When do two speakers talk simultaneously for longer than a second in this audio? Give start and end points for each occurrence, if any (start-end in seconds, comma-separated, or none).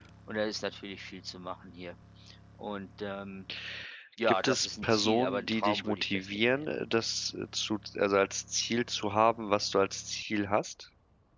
4.4-6.6